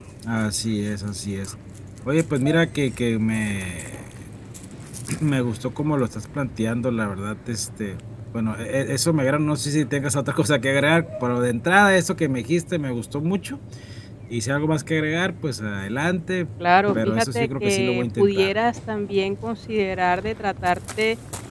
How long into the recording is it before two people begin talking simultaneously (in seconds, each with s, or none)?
17.0 s